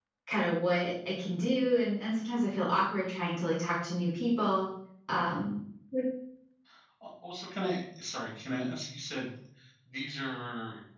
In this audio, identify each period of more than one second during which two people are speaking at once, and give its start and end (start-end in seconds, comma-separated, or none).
none